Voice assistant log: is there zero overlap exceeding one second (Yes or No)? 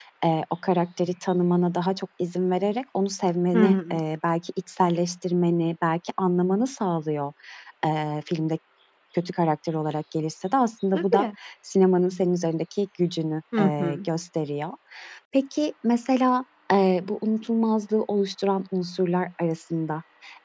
Yes